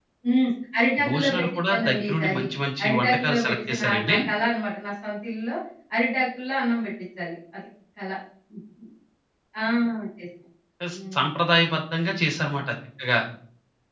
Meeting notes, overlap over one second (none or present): present